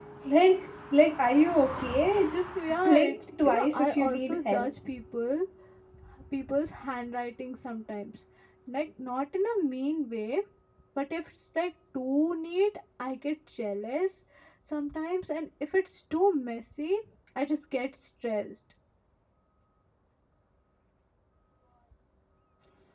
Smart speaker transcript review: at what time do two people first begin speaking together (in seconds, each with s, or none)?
2.5 s